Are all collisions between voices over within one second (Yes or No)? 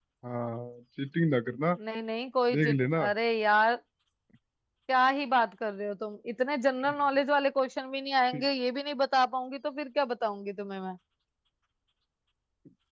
Yes